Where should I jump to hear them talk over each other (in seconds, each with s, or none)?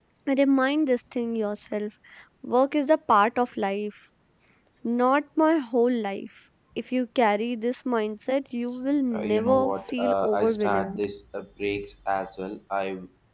9.1 s